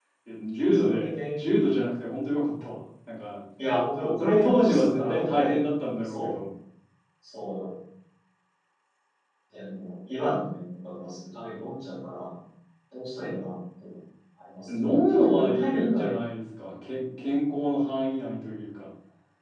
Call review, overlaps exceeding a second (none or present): present